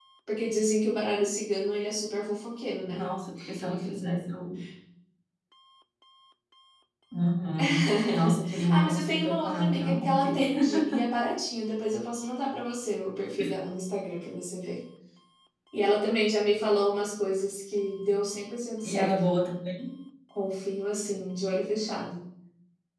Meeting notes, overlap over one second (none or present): present